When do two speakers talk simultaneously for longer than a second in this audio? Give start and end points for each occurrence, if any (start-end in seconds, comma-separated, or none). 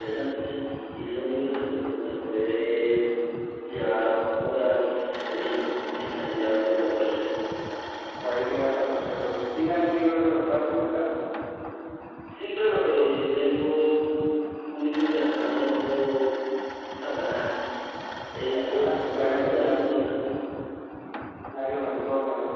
18.5-20.0